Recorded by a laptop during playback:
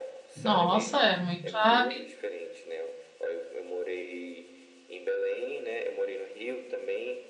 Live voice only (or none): Nossa, é muito, habi-